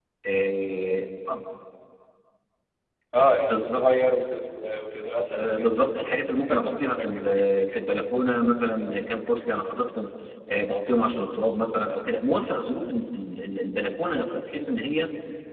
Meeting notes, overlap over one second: present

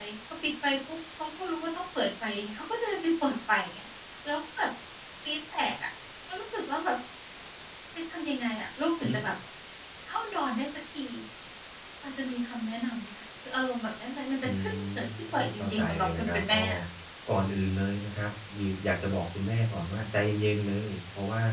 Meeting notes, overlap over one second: present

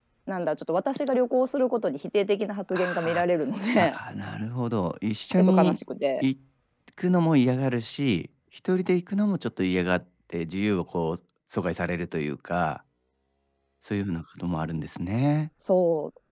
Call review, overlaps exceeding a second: none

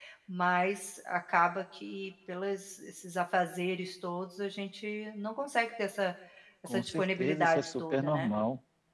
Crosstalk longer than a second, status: present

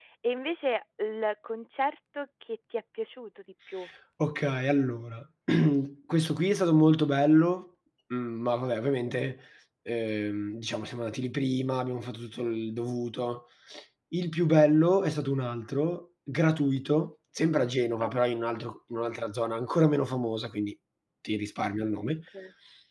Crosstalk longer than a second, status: none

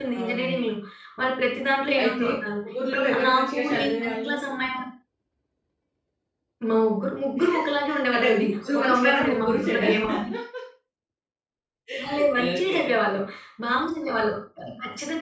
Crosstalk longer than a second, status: present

